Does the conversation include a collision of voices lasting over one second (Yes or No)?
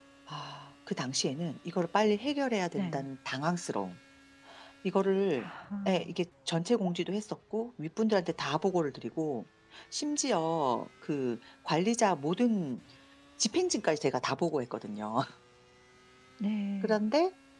No